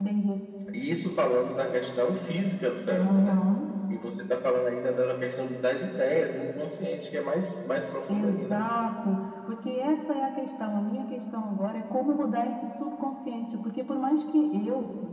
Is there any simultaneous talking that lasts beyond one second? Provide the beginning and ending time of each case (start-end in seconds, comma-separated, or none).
none